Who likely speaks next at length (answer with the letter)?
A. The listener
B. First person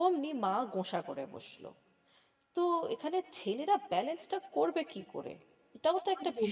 A